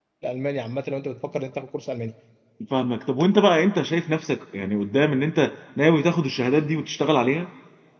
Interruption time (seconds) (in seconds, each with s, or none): none